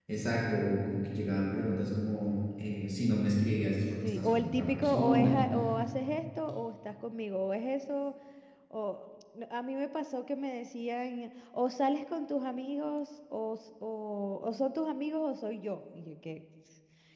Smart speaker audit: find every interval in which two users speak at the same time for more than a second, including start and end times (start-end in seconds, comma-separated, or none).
4.2-5.4